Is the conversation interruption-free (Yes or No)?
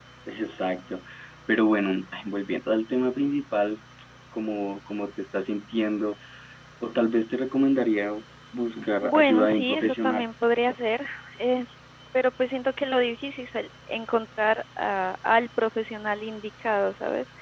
No